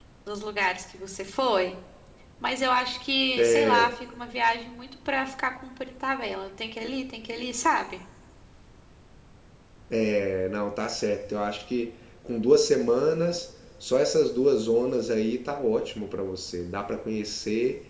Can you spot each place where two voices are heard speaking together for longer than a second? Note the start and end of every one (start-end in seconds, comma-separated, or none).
none